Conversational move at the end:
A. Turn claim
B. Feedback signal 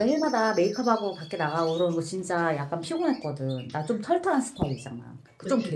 A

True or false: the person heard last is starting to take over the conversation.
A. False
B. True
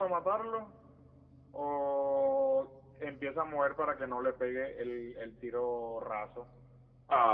B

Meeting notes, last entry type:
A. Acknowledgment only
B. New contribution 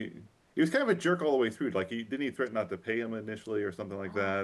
B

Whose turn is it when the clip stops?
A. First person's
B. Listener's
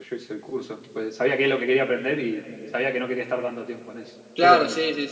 B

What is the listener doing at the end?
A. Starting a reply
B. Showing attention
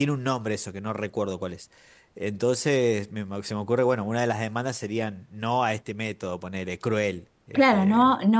A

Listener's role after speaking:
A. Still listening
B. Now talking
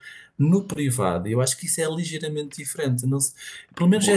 B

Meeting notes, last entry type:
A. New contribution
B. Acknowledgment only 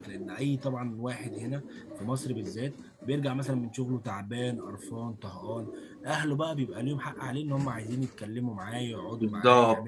A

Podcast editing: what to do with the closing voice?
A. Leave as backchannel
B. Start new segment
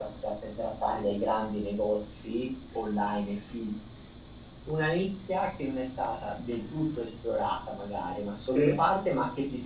A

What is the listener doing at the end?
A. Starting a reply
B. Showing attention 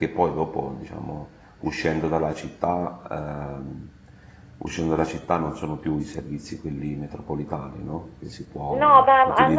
A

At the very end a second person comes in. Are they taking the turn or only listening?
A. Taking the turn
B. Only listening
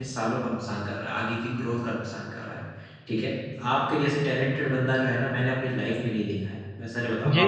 B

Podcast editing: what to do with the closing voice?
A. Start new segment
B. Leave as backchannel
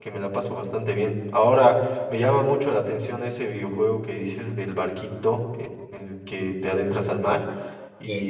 B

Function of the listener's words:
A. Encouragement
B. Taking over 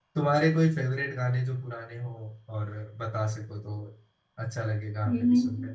B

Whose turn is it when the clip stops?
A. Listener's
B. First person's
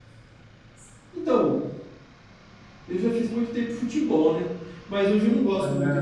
B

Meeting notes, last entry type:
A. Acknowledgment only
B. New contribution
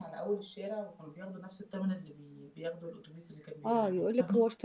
B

